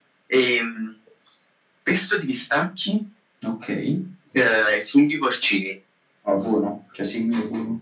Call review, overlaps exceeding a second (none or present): none